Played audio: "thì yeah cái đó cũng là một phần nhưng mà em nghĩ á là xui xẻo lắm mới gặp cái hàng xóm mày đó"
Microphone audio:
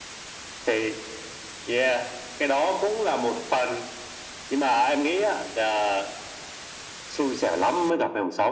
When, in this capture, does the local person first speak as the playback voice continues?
none

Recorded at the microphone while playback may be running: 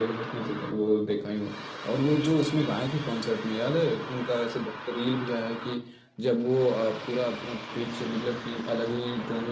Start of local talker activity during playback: none

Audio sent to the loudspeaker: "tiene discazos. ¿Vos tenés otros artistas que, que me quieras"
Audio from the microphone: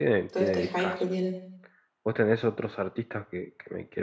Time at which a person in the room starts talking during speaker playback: 0 s

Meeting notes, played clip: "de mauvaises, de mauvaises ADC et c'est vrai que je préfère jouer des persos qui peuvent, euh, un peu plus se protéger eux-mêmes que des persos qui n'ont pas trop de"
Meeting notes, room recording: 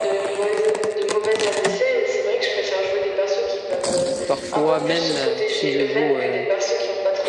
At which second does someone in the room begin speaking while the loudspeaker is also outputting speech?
4 s

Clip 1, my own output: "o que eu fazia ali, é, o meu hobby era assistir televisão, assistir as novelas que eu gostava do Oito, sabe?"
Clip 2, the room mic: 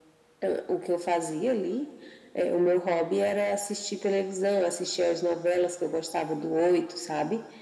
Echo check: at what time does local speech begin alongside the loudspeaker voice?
none

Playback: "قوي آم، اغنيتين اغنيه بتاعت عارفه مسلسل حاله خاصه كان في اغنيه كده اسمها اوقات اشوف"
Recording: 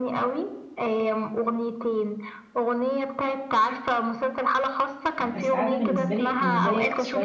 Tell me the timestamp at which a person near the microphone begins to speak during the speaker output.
5 s

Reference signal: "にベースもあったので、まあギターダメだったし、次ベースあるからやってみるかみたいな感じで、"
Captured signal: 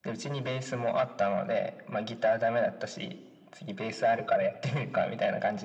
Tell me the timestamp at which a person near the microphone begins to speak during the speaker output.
none

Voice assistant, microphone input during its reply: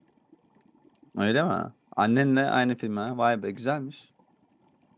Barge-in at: 1 s

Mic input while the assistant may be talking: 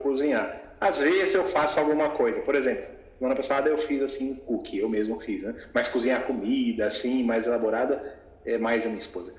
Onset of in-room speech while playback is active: none

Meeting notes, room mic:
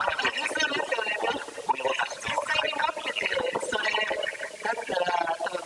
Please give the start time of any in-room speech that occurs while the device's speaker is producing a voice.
none

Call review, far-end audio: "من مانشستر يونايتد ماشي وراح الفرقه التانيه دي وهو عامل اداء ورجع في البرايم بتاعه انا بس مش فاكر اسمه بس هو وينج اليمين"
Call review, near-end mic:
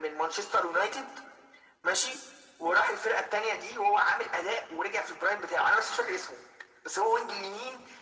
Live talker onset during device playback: none

